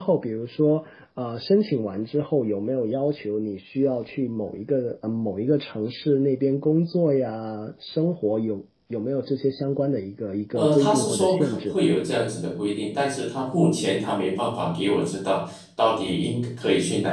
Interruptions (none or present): present